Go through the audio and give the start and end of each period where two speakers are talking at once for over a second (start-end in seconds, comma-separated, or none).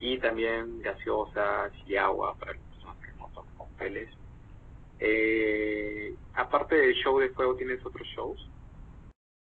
none